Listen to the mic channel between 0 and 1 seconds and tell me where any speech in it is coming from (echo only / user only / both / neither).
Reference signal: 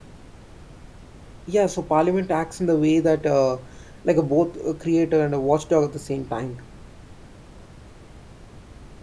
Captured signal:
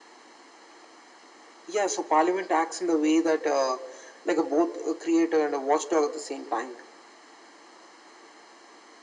neither